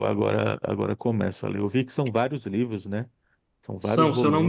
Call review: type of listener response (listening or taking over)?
taking over